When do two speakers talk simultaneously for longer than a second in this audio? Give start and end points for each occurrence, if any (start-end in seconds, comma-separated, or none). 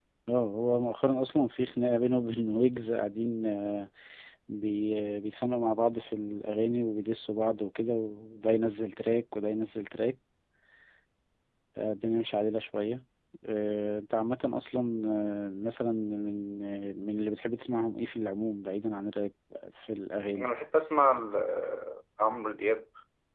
none